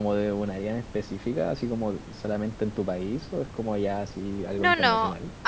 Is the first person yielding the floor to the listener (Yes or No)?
Yes